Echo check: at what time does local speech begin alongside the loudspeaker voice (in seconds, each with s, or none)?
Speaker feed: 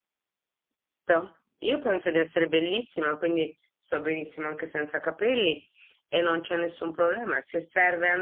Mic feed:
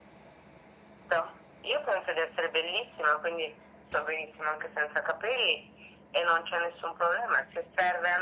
none